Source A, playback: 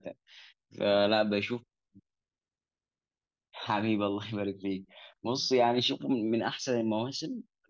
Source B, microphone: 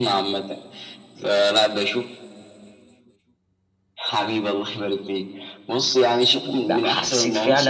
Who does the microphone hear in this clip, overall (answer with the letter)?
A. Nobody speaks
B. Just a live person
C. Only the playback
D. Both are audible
D